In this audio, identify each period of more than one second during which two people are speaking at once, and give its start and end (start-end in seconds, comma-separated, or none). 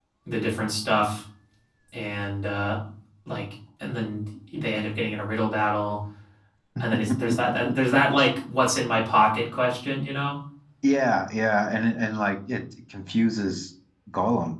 none